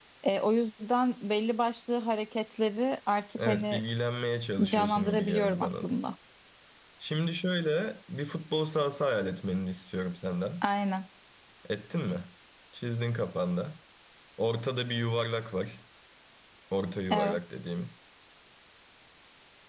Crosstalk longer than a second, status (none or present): present